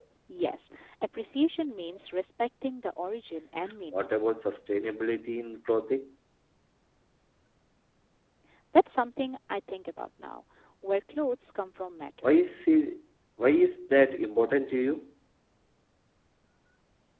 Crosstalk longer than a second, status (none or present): none